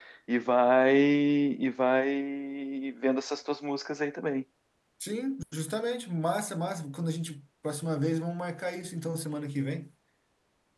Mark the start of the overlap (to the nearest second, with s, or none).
none